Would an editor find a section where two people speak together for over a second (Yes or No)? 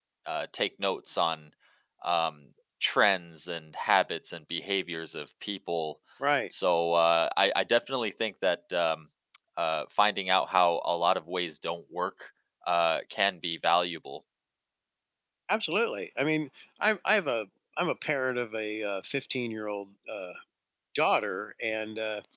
No